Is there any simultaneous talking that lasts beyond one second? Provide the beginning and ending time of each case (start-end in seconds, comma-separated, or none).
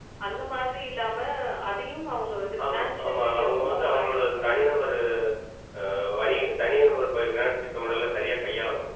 2.7-4.7